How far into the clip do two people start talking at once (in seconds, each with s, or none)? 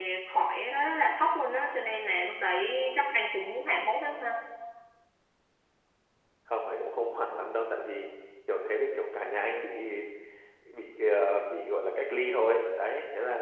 none